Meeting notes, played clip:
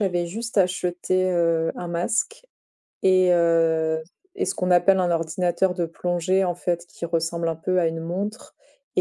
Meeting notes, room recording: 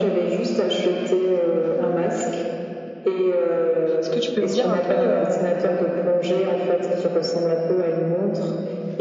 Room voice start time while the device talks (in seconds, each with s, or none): 4.0 s